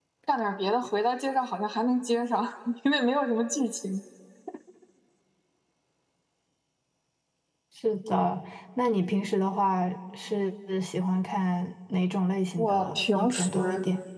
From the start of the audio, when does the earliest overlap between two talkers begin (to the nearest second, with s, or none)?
13 s